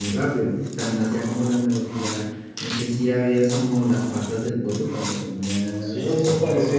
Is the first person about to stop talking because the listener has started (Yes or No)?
Yes